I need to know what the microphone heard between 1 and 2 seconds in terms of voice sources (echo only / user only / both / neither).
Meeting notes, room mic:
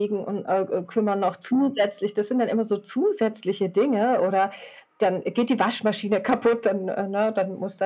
echo only